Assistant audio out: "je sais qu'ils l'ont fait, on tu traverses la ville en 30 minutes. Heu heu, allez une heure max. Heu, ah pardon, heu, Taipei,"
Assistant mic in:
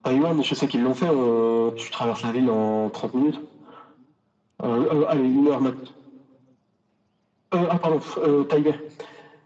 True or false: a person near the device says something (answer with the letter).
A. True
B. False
B